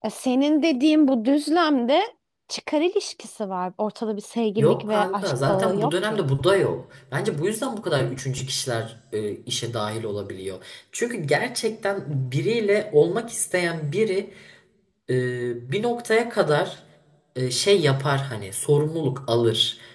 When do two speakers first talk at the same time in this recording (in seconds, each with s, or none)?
4.6 s